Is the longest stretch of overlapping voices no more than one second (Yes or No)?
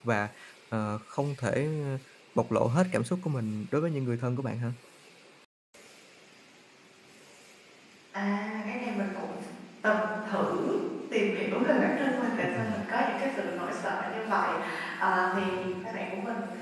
Yes